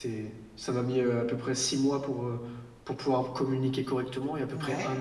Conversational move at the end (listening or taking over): listening